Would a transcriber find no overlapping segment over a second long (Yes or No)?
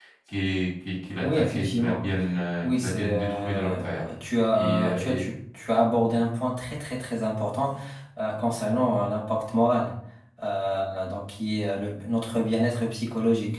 No